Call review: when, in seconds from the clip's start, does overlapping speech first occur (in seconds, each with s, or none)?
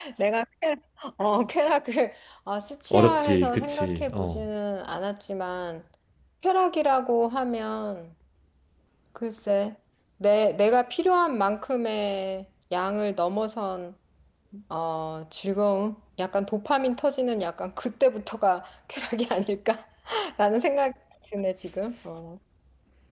2.9 s